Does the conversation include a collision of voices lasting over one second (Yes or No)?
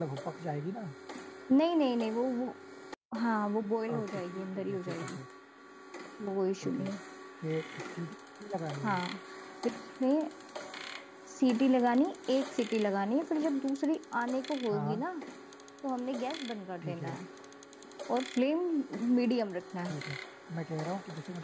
Yes